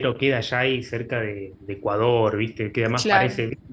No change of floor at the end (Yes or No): Yes